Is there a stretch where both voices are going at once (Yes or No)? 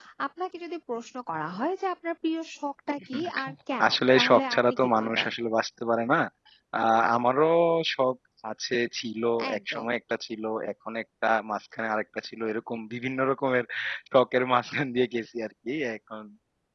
Yes